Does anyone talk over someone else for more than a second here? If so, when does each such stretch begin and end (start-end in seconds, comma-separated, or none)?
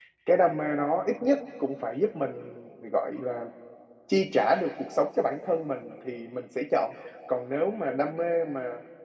none